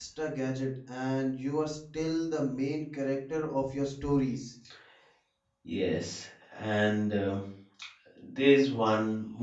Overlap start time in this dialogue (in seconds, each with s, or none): none